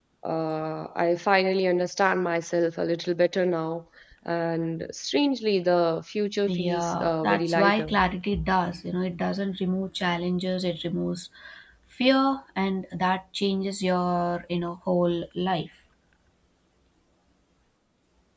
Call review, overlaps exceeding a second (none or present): present